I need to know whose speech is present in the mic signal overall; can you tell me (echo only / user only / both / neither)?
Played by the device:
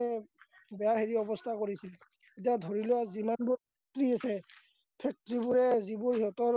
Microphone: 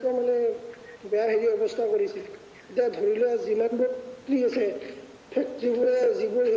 echo only